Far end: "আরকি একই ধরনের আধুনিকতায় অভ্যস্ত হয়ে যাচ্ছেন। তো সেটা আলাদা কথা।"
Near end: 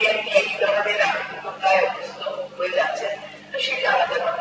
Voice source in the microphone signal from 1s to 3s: echo only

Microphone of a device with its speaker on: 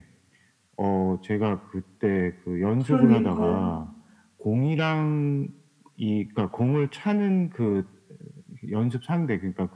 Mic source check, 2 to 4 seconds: both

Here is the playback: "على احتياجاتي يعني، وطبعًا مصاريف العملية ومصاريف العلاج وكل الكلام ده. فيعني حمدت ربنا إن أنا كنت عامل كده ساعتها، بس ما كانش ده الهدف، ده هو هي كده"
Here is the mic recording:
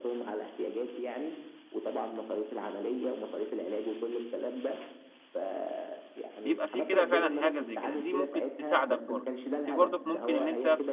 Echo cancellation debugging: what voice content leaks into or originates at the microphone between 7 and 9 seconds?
both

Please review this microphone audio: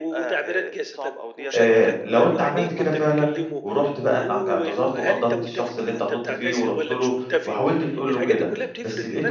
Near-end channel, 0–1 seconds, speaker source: echo only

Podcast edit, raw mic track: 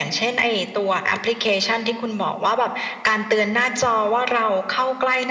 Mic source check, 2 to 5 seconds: echo only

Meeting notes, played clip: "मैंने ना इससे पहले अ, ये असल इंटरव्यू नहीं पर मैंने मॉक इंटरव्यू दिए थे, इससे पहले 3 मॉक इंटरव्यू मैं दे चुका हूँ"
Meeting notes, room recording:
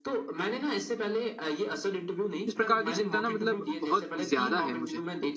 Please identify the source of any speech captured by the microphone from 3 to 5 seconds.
both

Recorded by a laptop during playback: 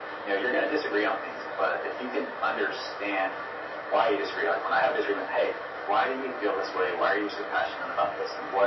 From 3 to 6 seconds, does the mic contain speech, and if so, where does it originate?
echo only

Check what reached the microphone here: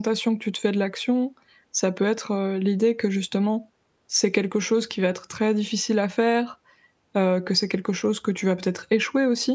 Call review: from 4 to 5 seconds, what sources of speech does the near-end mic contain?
user only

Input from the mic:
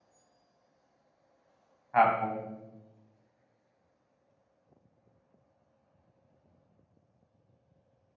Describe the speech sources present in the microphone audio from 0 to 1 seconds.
neither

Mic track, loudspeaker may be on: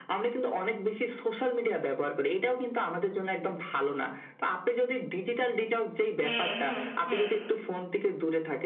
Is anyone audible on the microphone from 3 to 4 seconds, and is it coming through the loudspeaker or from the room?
echo only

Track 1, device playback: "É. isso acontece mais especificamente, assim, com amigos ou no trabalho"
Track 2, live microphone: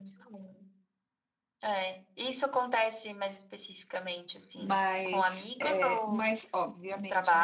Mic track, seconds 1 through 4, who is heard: echo only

